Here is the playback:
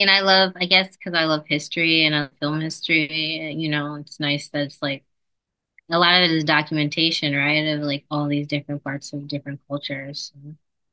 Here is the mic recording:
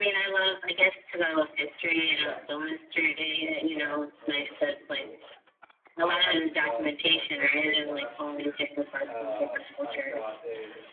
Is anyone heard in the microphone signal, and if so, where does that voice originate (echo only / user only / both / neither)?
both